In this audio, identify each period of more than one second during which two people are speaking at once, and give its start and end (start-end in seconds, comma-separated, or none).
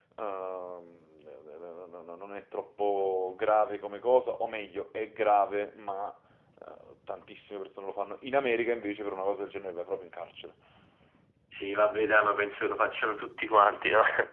none